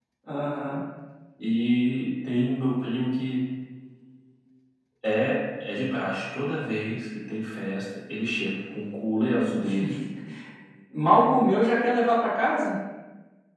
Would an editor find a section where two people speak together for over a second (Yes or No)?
No